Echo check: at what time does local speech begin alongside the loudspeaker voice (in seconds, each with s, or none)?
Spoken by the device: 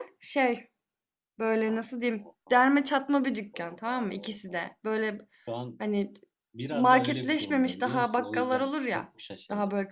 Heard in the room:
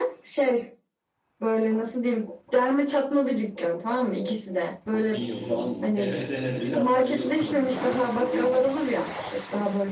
4.9 s